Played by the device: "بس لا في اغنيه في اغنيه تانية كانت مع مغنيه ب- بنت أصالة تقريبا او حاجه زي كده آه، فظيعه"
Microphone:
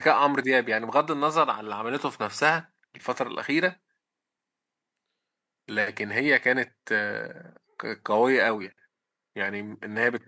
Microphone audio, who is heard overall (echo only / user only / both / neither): user only